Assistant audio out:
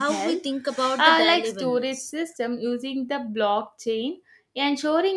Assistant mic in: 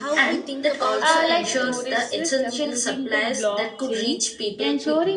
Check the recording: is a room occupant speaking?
Yes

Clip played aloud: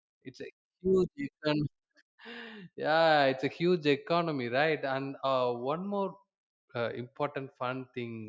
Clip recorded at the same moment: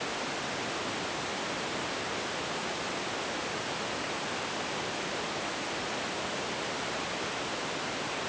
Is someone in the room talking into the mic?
No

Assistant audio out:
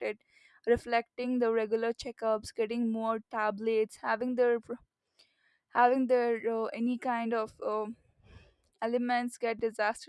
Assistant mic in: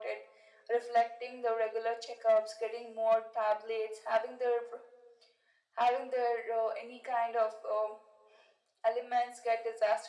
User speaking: No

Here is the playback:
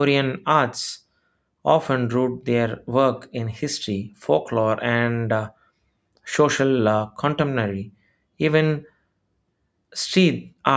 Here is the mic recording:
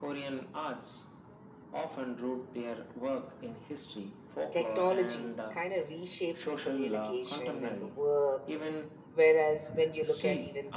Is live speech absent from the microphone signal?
No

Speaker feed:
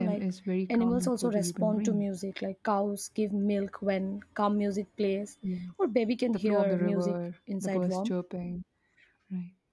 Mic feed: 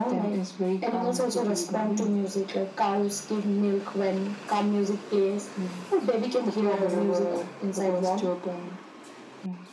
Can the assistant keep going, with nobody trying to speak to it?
Yes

